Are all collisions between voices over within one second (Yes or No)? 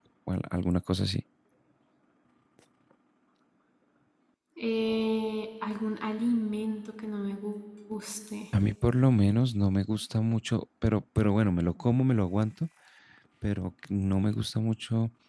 Yes